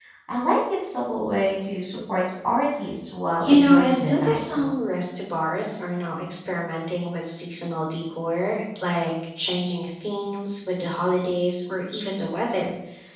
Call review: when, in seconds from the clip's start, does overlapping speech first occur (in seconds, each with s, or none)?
3.4 s